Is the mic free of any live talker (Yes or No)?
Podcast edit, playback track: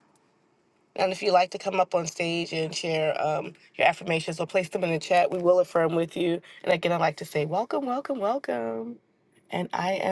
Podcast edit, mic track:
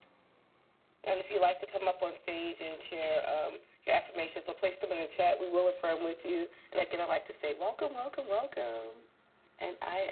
Yes